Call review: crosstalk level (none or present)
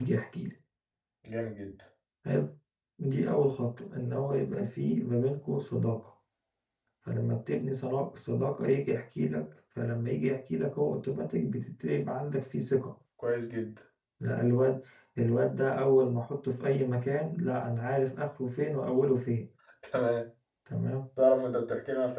none